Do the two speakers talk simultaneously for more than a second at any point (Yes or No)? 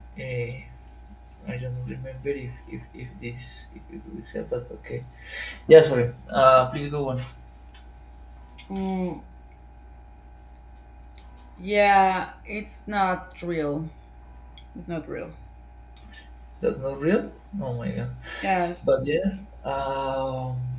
No